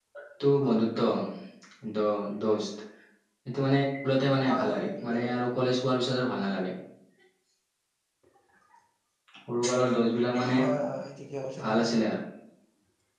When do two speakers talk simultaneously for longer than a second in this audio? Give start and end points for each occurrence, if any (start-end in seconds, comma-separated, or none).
4.4-5.7